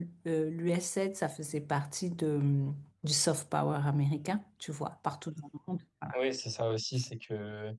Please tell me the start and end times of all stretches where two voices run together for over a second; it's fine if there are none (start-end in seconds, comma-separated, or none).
none